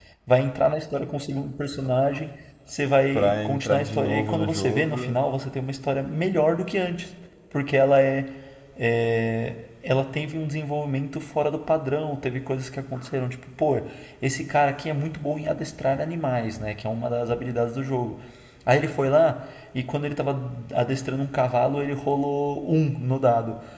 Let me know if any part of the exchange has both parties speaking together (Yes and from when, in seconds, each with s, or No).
Yes, from 3.1 s